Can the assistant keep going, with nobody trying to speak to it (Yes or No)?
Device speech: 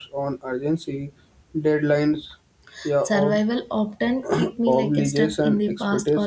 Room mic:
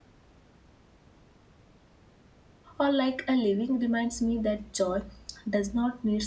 No